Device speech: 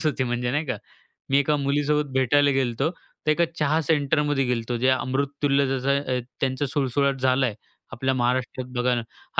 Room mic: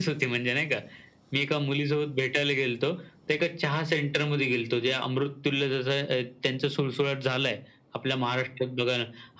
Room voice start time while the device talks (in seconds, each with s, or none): none